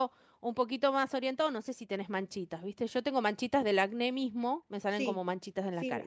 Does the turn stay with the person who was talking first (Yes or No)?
No